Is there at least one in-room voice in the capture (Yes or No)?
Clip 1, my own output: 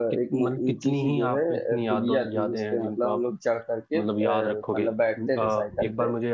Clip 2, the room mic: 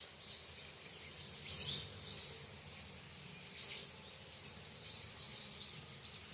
No